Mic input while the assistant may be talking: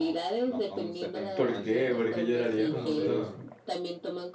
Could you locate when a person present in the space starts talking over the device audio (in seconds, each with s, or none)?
1.3 s